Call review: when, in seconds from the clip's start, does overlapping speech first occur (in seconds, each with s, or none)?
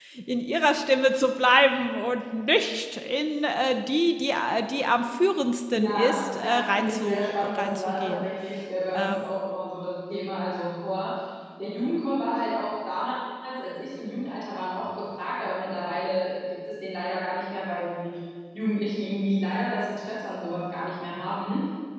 5.7 s